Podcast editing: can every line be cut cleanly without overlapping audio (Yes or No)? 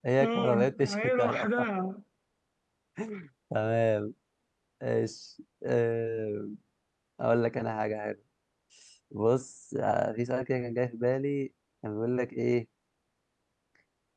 No